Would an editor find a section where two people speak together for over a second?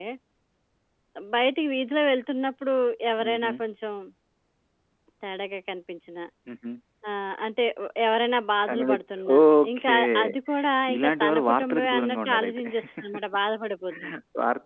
Yes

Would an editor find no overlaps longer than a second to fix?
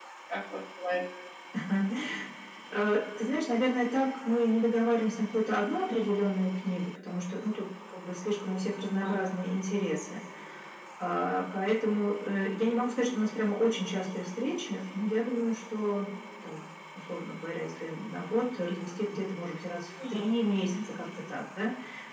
Yes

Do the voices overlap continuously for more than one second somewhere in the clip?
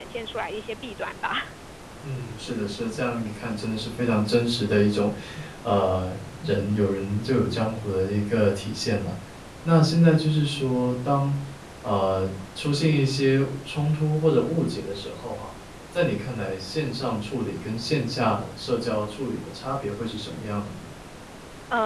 No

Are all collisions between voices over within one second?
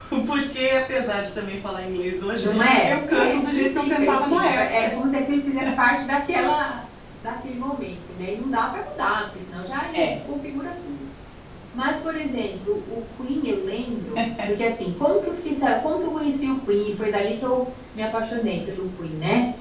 No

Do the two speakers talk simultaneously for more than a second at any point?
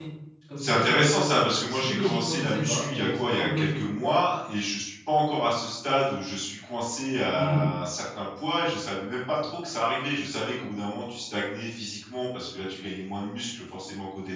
Yes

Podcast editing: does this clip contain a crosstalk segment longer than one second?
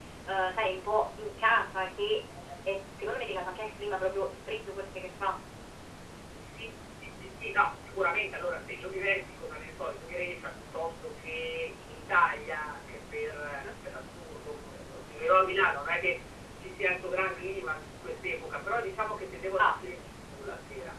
No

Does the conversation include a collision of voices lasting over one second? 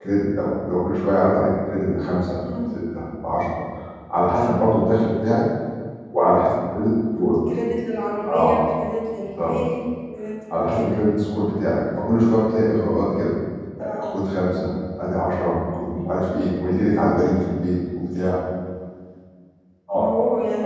No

